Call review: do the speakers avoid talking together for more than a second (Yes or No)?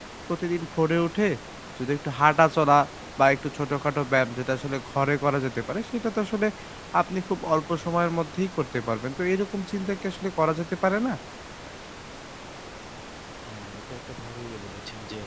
Yes